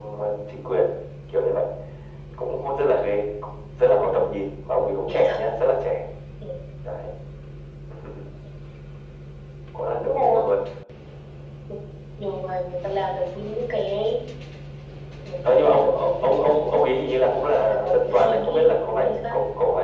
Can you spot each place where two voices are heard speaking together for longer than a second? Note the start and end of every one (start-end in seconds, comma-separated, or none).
15.4-17.0, 17.6-19.4